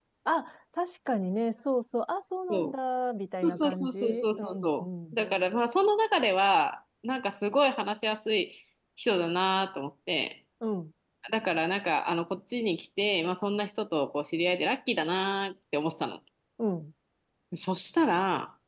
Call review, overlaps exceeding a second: present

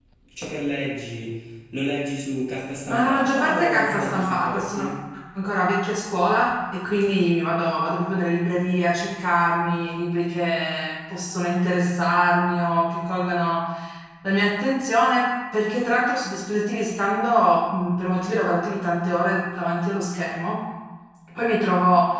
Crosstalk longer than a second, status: present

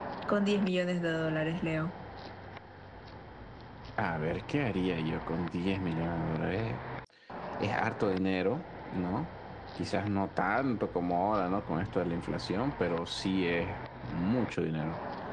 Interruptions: none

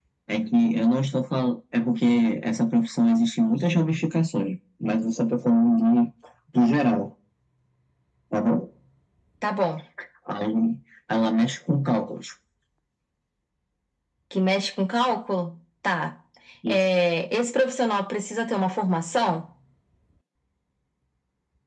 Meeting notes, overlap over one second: none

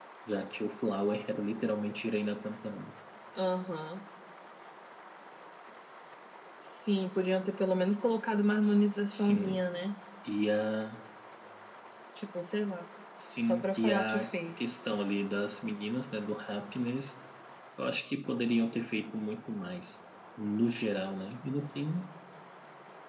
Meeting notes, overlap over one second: present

